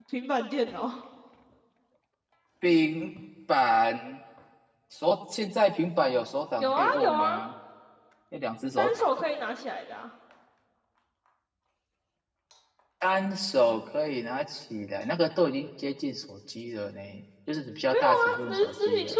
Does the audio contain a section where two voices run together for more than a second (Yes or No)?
Yes